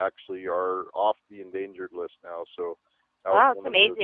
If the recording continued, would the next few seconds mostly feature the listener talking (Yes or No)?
Yes